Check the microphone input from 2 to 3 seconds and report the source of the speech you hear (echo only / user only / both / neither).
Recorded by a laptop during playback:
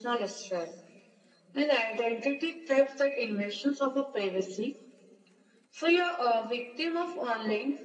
echo only